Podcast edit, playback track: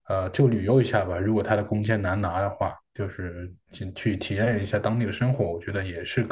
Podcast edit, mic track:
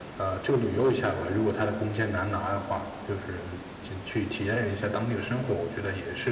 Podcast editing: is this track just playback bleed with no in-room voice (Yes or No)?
Yes